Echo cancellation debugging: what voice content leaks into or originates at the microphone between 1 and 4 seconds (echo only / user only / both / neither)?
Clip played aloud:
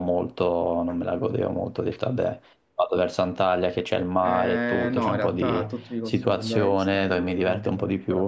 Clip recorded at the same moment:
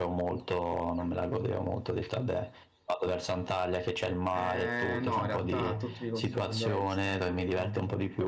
echo only